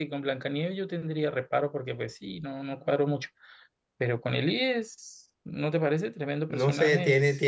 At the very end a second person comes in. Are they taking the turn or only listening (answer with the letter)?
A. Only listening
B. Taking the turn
B